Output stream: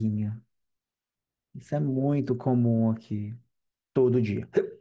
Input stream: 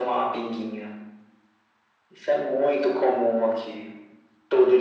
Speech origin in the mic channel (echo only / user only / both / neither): echo only